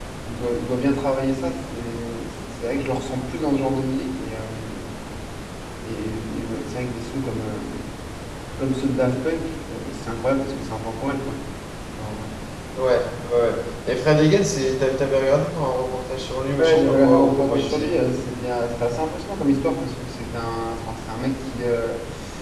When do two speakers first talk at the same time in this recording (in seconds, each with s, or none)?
16.6 s